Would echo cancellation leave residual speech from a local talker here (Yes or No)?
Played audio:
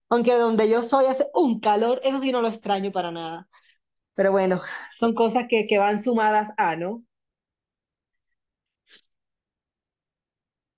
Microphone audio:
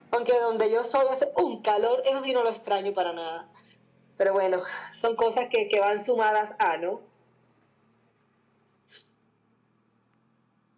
No